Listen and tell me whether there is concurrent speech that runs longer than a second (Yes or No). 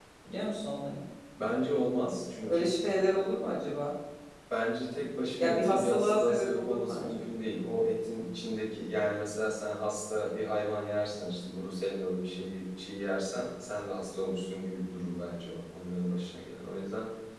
Yes